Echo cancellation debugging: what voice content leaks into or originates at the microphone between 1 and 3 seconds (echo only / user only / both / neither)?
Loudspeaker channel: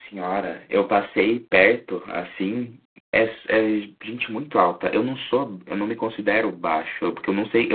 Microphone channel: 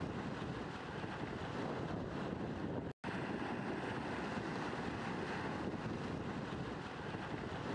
neither